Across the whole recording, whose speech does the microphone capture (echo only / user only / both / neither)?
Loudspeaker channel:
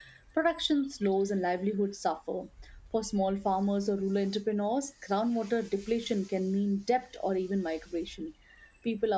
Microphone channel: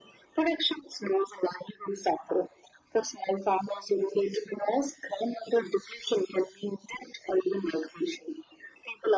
echo only